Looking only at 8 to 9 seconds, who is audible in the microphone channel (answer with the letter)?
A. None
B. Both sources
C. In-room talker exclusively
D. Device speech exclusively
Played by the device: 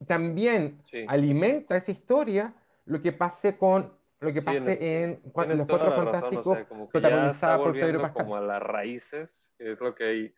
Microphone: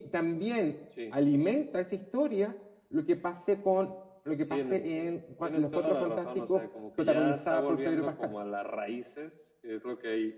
D